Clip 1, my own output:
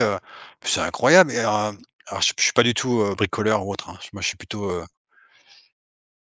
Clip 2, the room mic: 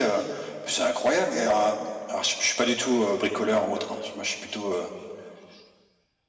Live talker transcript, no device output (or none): none